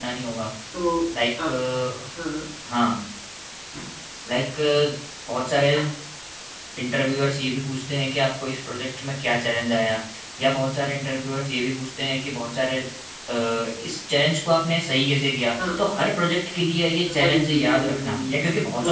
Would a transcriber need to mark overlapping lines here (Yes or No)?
Yes